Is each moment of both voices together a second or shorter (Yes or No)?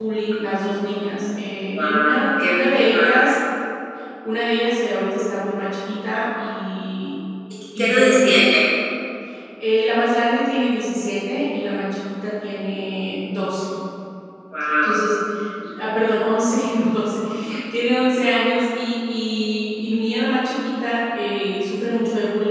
No